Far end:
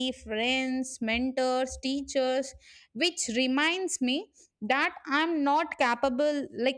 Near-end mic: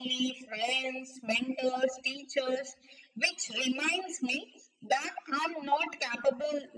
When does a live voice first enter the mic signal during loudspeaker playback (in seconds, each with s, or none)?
none